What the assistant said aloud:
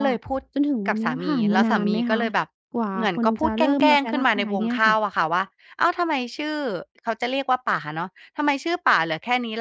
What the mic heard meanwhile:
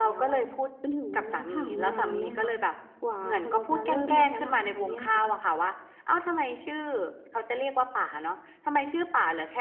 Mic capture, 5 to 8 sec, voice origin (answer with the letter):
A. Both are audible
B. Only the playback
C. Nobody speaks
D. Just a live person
B